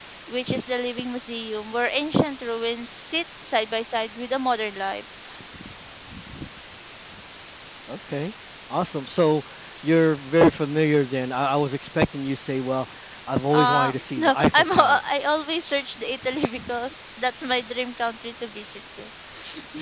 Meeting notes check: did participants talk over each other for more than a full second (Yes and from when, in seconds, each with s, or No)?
Yes, from 13.5 s